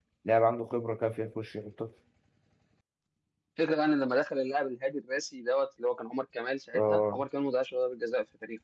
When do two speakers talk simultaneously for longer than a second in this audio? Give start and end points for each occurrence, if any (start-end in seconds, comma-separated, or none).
none